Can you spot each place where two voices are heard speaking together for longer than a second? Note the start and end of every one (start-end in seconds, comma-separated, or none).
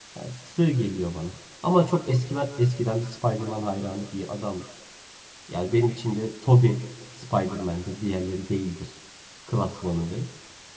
none